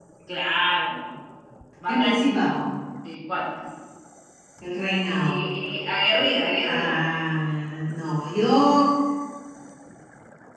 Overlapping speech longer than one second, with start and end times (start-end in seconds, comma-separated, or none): none